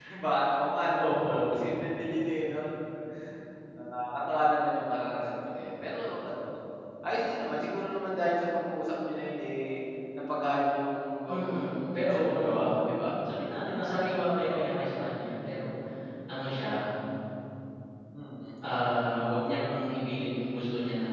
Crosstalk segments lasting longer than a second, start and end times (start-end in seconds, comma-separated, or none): 11.3-12.8